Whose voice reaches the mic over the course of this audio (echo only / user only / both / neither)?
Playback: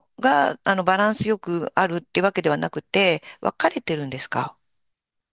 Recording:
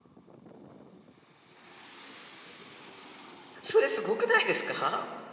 user only